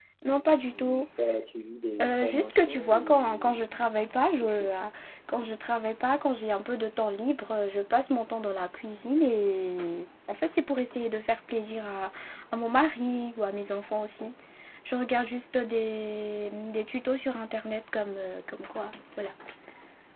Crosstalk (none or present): present